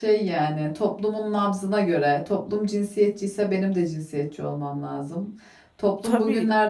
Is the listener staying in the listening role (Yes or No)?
Yes